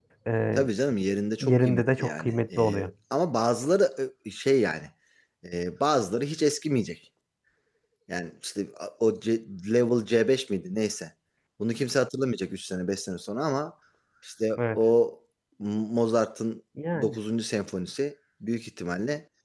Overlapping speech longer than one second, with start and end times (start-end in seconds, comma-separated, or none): 1.4-2.9